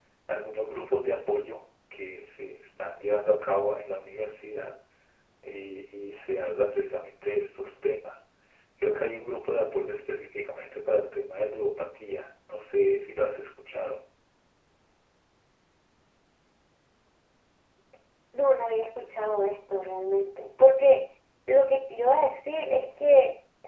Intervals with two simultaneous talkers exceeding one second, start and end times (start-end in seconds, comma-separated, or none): none